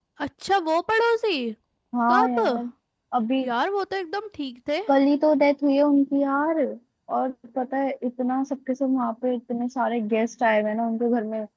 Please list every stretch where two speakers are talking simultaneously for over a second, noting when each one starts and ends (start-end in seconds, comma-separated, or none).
none